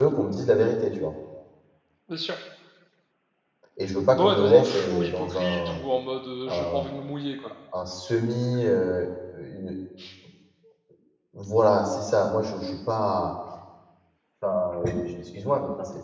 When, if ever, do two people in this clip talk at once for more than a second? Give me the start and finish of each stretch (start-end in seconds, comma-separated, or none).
4.1-5.8